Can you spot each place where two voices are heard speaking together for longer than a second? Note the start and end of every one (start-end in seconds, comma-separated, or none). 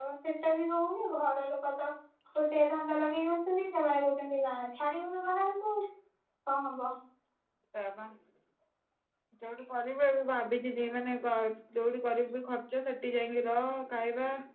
none